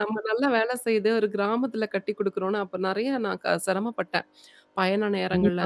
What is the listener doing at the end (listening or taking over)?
listening